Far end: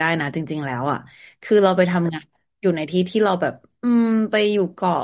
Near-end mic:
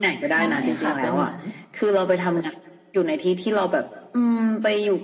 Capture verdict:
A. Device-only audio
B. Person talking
B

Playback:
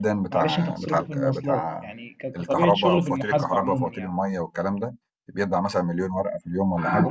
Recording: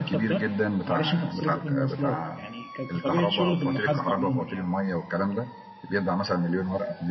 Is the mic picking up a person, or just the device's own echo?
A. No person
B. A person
A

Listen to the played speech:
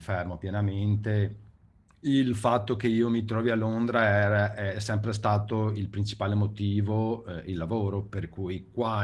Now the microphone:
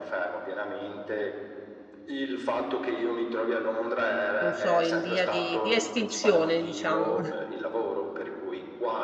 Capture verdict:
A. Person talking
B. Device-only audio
A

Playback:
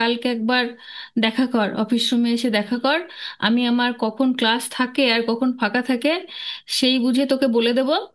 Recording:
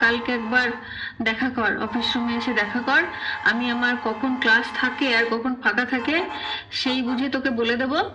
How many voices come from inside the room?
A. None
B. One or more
A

